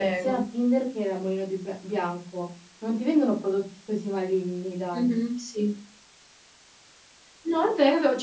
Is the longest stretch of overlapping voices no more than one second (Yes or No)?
Yes